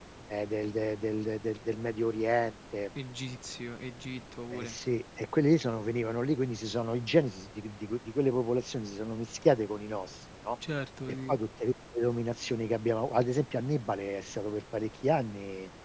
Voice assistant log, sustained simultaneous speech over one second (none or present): none